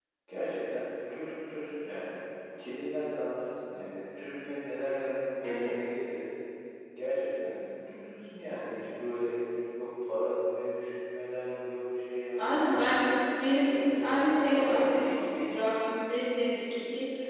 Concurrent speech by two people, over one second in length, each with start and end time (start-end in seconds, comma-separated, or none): 13.6-15.3